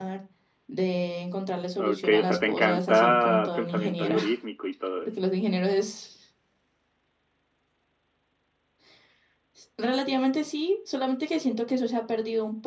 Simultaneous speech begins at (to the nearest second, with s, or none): 2 s